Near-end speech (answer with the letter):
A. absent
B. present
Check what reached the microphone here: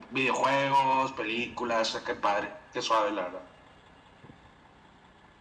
A